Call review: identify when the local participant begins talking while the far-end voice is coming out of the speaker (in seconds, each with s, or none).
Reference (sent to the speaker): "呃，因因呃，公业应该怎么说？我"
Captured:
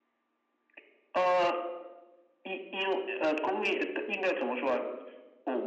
none